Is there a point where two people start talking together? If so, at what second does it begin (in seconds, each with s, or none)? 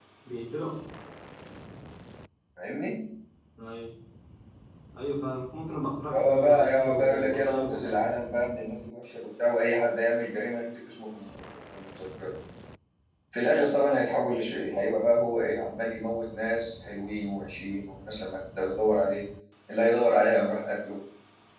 6.1 s